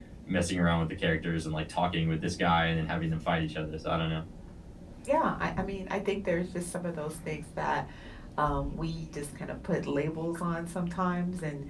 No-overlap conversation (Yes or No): Yes